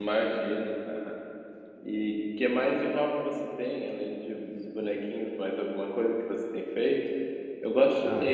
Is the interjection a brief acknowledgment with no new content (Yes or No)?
No